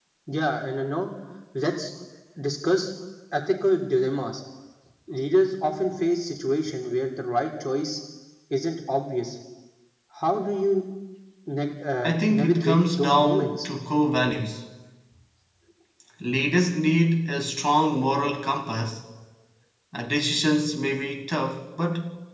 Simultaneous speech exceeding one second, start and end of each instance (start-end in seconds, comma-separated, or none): 12.0-13.7